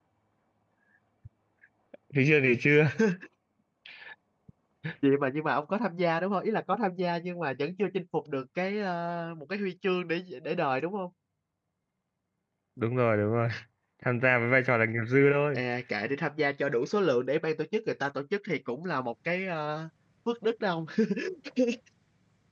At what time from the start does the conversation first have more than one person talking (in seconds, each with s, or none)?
none